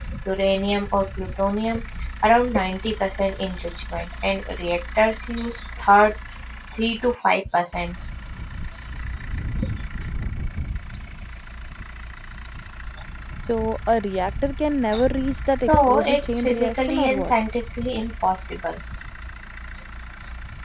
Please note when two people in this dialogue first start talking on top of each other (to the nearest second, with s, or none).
16 s